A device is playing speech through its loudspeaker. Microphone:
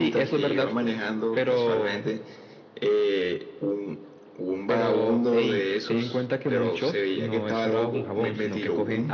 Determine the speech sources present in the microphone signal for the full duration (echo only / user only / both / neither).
echo only